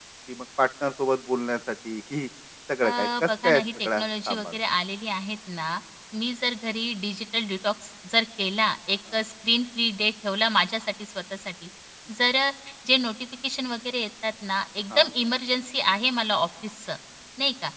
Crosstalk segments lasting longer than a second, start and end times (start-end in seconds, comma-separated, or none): 2.8-4.6